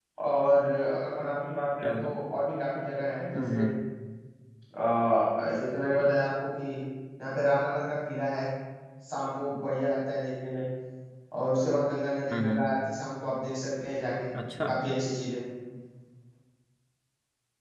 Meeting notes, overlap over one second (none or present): none